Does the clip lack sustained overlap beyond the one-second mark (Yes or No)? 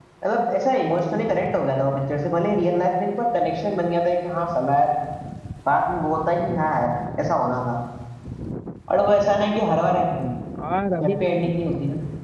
Yes